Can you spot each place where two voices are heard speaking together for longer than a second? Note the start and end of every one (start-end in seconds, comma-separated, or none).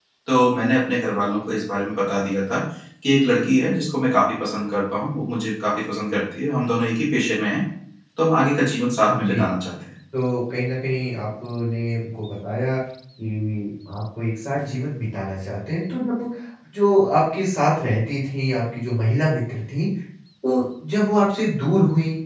none